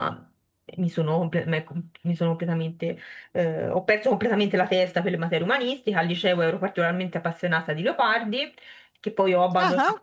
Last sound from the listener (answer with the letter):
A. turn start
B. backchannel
B